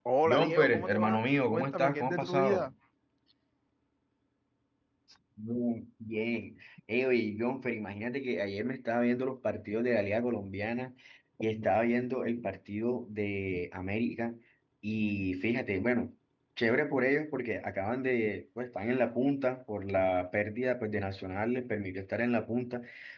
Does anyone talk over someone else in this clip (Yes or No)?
Yes